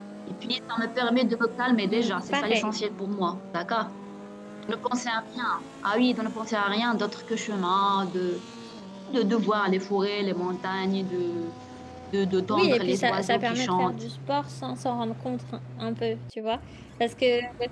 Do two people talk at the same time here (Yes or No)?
Yes